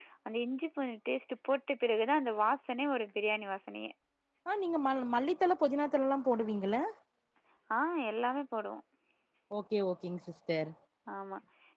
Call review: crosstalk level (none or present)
none